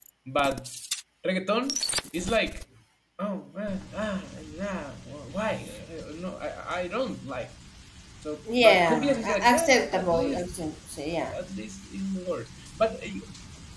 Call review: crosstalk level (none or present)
present